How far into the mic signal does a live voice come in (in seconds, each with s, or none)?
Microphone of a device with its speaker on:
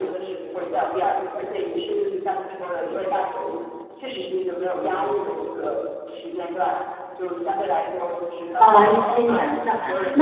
8.6 s